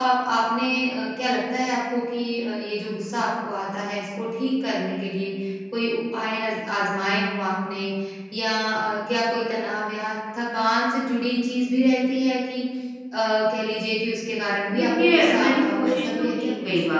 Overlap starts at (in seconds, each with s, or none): 14.7 s